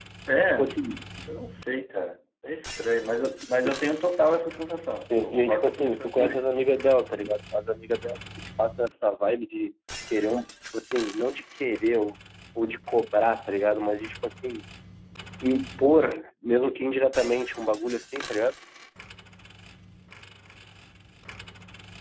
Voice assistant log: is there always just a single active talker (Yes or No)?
No